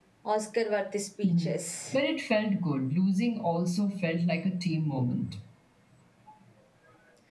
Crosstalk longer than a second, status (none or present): none